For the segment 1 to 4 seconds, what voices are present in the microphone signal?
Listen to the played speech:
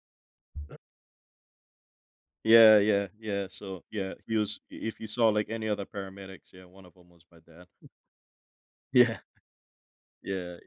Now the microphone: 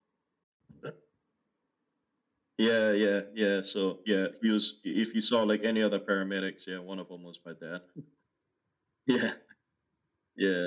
echo only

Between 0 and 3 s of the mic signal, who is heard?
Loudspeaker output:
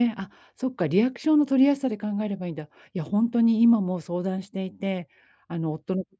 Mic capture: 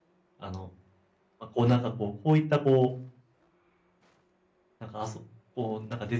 user only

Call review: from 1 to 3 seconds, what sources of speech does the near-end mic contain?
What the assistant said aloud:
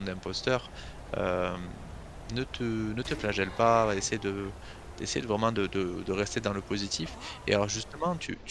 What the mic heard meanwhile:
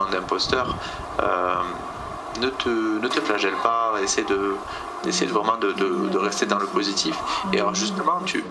echo only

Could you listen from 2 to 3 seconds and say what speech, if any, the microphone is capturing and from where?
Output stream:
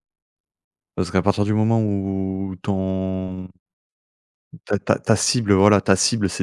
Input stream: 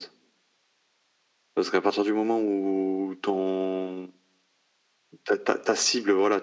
echo only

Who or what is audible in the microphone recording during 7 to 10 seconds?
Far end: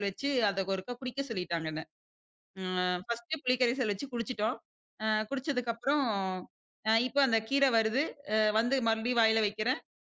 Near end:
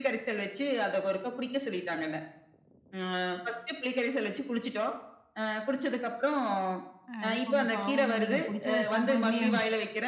both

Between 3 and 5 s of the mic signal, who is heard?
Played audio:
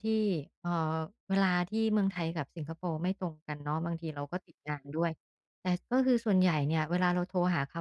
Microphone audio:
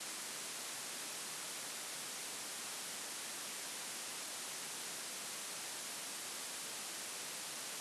neither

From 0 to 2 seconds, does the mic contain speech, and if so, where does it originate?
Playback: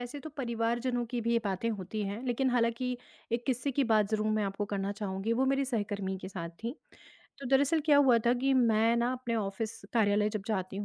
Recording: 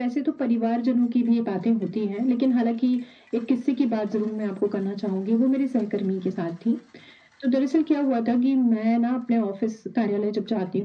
echo only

